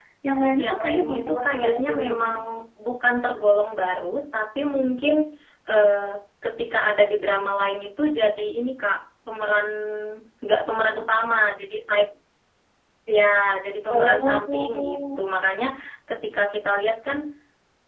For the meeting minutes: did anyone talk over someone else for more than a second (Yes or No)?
Yes